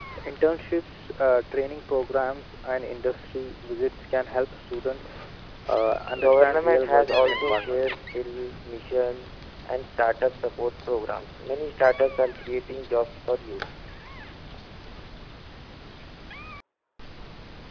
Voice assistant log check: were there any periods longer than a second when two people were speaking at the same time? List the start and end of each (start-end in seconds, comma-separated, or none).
6.2-7.8